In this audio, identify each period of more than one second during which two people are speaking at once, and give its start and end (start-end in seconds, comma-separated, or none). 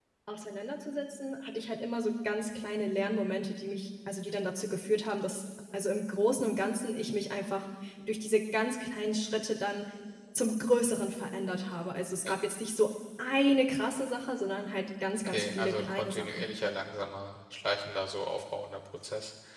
15.3-16.5